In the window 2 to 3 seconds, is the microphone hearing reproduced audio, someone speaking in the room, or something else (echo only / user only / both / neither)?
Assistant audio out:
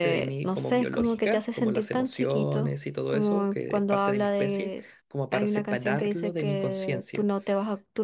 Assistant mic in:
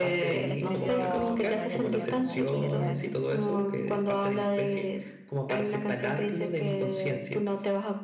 both